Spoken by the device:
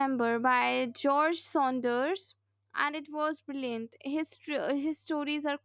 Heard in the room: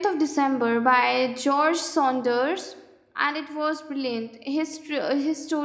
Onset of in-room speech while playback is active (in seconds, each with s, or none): none